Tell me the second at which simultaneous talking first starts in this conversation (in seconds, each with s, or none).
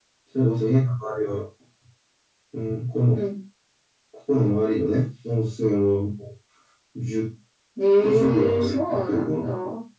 7.8 s